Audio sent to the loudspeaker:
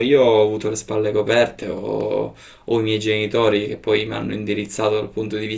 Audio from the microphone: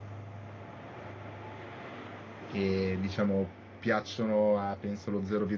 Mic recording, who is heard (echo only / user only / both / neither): user only